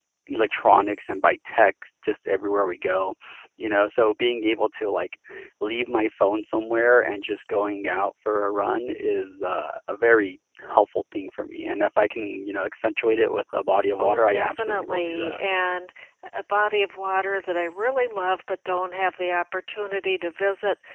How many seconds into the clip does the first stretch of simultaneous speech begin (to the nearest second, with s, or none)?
14 s